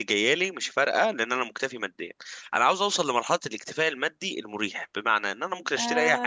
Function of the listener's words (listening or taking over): taking over